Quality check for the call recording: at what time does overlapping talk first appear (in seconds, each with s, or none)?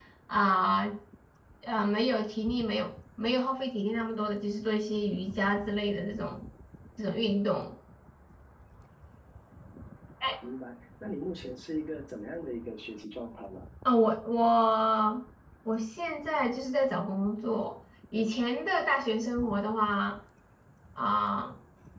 none